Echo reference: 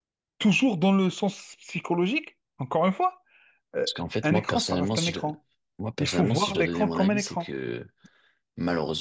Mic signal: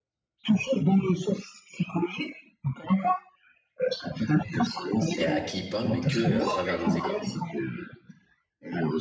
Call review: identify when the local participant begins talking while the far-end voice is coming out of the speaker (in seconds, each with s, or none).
5.2 s